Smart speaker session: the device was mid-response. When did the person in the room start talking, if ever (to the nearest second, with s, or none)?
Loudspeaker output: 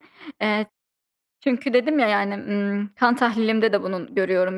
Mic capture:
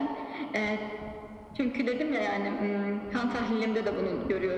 none